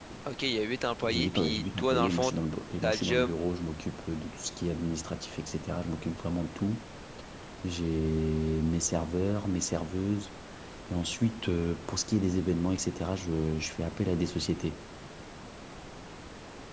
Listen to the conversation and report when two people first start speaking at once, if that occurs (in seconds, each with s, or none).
1.1 s